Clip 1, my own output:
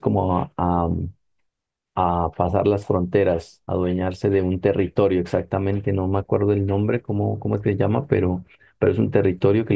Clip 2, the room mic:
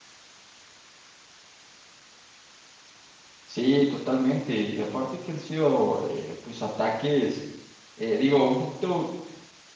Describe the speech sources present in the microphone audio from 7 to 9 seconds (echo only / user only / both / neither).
user only